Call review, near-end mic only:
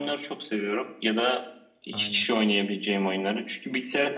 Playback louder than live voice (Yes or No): Yes